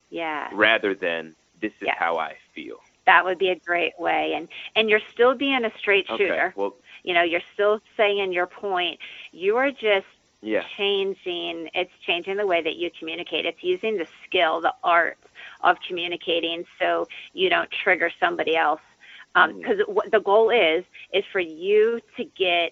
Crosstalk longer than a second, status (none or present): none